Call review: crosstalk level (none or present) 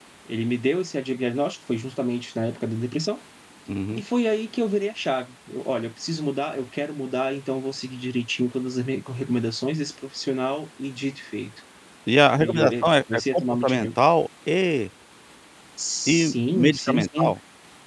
present